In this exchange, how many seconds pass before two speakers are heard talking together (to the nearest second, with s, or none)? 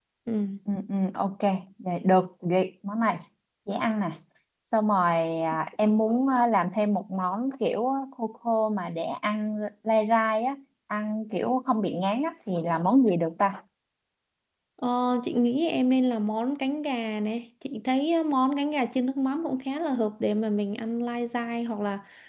none